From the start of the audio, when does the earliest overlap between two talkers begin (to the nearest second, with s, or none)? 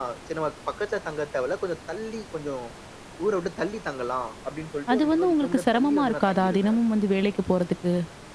5 s